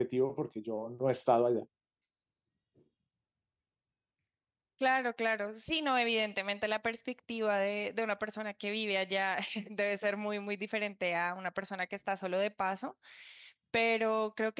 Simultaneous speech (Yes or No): No